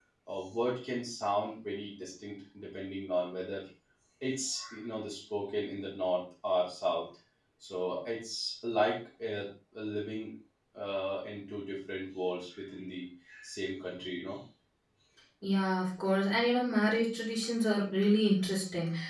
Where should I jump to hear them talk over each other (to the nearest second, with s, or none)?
none